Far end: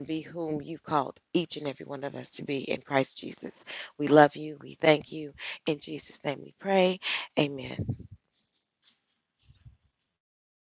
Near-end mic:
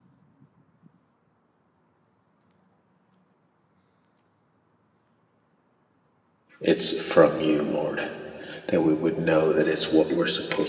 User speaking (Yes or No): Yes